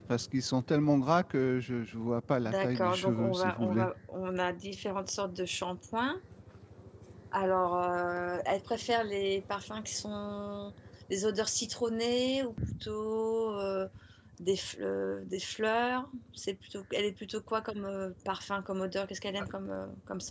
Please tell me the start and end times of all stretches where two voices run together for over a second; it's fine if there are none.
2.4-3.9

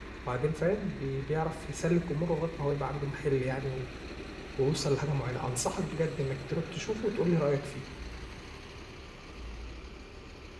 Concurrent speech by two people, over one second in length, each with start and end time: none

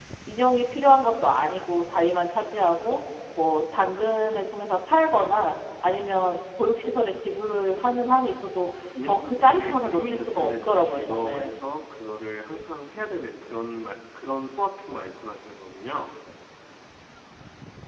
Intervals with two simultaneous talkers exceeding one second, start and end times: 8.9-11.6

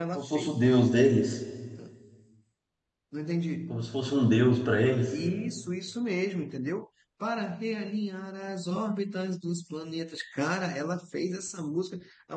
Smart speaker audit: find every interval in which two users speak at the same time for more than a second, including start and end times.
none

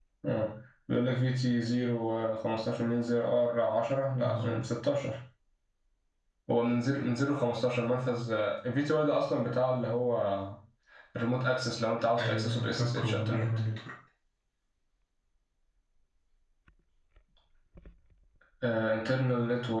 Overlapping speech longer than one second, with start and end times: 12.2-13.6

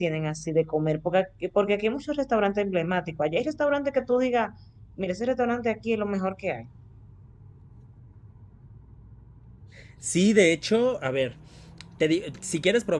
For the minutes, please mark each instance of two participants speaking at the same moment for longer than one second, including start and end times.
none

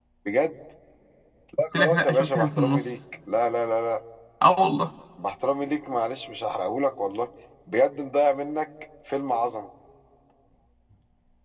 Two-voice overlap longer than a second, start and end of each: 1.7-2.9

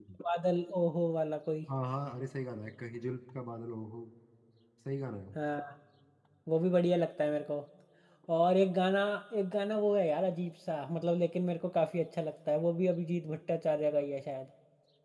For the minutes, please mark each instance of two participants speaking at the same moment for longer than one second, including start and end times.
none

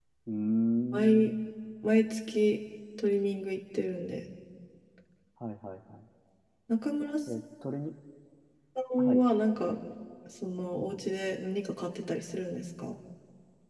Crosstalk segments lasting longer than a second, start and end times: none

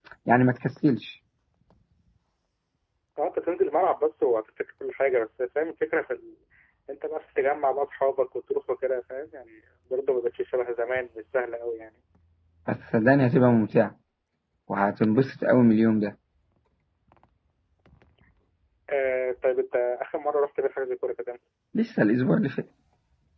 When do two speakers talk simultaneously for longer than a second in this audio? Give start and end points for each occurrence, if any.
none

